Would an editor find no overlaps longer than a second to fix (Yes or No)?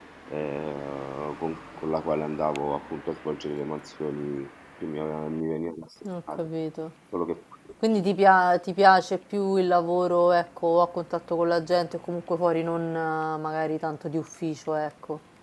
Yes